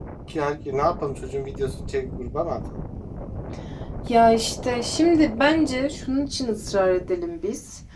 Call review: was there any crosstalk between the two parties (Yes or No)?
No